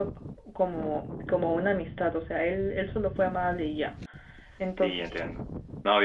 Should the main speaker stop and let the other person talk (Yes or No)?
Yes